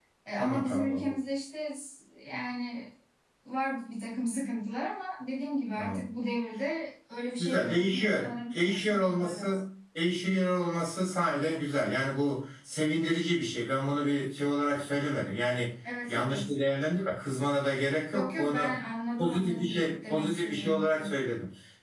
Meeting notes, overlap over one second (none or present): present